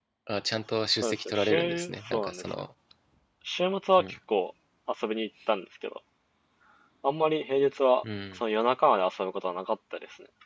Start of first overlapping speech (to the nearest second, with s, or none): 1 s